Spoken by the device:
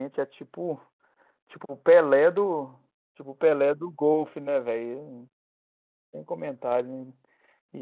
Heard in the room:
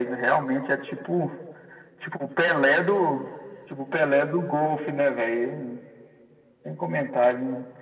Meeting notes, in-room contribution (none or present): none